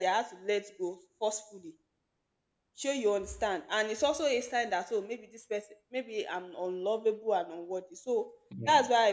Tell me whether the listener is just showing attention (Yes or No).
Yes